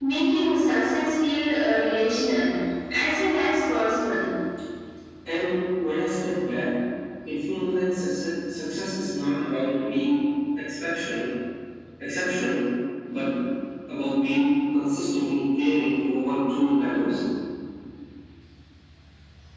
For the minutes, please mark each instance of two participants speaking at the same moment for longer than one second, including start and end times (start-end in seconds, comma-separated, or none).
none